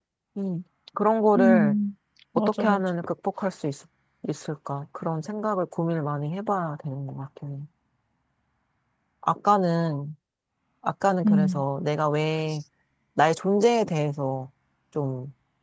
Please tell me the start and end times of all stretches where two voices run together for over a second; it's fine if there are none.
none

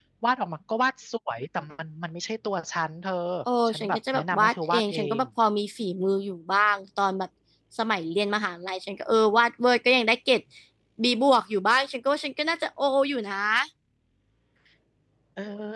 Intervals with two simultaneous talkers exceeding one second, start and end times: 3.7-5.2

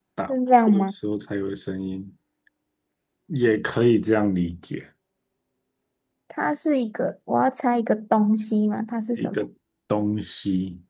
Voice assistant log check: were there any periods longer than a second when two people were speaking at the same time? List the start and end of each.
none

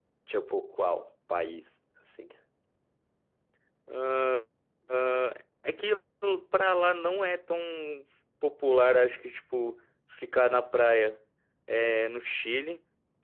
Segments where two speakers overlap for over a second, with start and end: none

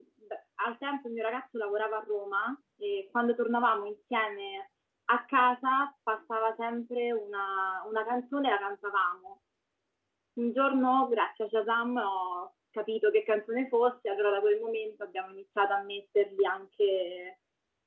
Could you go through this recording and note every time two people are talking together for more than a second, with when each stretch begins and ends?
none

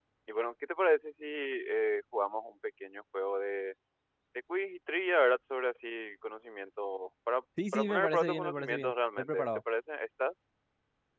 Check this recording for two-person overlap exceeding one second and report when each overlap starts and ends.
7.7-9.6

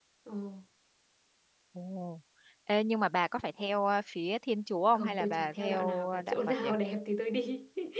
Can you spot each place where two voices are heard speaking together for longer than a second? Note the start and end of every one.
4.9-6.7

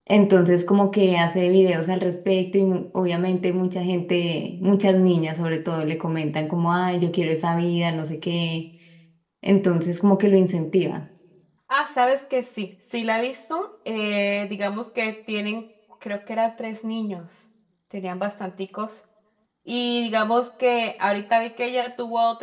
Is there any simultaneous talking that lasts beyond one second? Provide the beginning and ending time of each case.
none

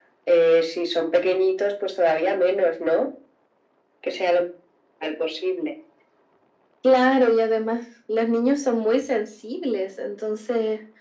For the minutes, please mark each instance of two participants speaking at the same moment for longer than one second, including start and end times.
none

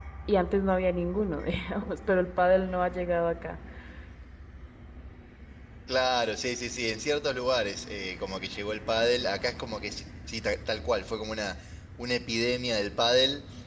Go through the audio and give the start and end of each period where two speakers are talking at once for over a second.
none

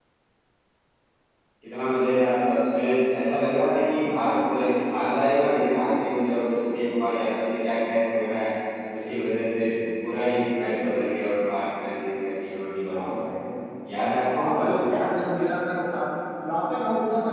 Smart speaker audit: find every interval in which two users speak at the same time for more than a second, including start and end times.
none

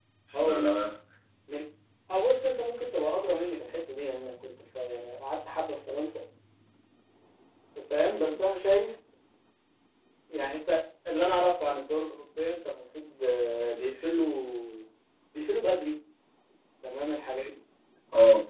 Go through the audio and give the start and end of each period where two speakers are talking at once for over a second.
none

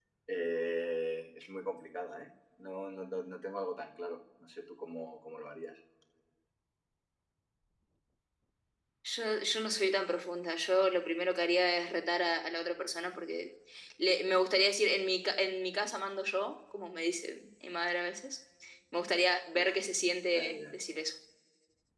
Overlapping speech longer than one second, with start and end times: none

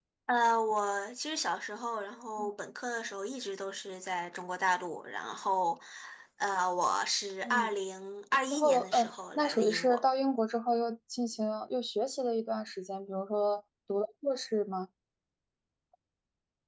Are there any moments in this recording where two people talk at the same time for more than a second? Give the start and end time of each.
8.5-10.0

